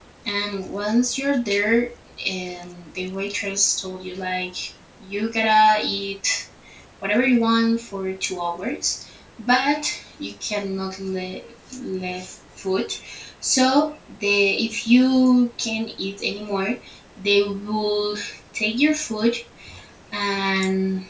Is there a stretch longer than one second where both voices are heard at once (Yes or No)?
No